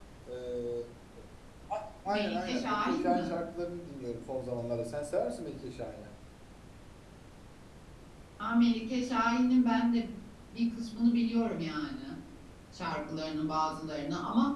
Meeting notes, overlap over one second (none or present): present